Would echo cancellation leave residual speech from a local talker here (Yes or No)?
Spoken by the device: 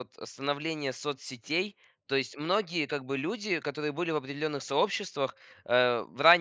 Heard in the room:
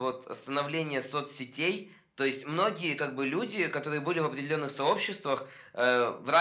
No